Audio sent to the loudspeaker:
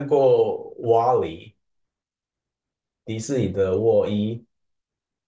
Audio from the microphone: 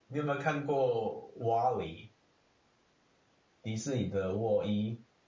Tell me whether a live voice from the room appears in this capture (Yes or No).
No